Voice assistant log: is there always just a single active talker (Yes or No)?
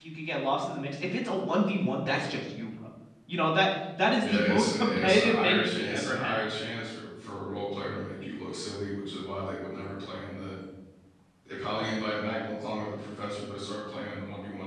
No